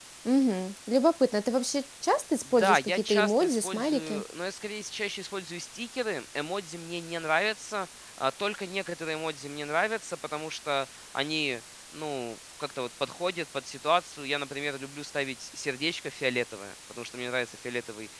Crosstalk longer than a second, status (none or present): present